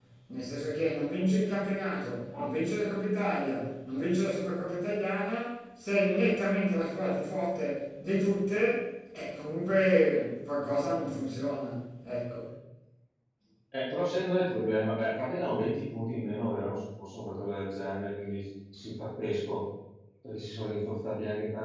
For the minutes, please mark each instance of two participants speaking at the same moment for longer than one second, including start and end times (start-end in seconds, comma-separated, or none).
none